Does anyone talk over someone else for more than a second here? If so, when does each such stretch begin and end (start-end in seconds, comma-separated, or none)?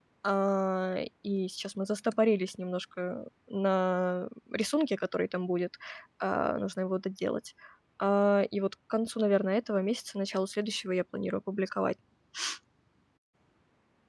none